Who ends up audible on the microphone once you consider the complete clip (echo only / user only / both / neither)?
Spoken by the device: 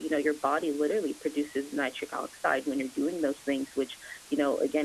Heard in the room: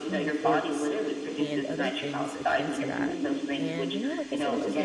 both